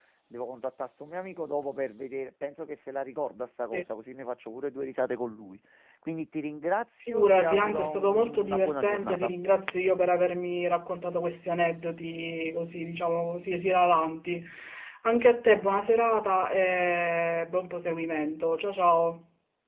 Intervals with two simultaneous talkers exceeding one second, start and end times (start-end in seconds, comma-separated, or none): 7.0-9.3